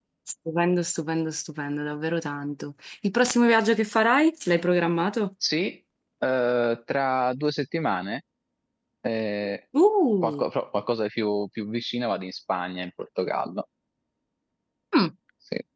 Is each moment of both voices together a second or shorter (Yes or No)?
Yes